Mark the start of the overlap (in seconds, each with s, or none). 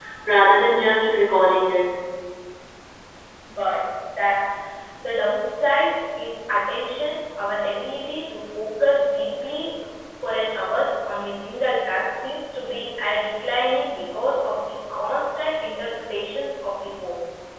none